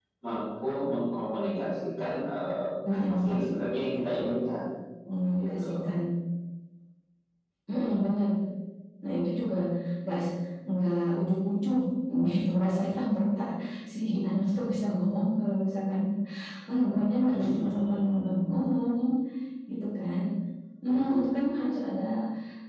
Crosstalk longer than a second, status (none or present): present